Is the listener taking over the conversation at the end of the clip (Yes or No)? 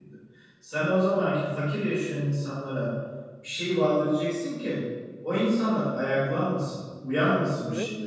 No